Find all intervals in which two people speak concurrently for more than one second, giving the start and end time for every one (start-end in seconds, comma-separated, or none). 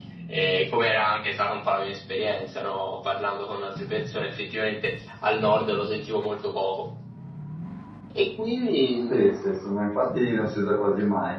none